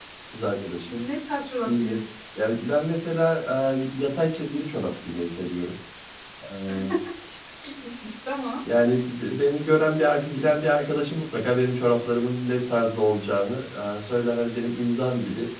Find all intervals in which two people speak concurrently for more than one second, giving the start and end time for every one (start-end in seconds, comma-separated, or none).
none